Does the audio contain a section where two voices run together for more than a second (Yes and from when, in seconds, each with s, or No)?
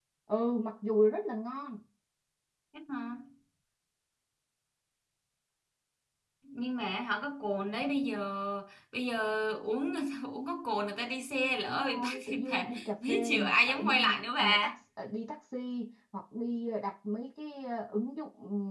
Yes, from 11.7 s